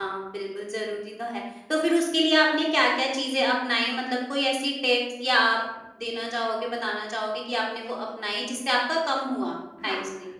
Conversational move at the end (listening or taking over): taking over